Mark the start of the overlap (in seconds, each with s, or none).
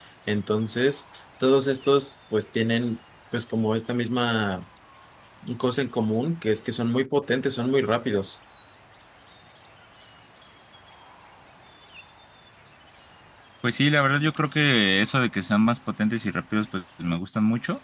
none